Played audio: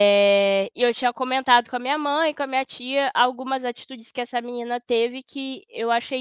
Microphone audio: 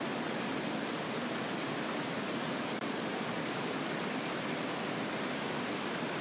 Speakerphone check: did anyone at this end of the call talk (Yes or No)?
No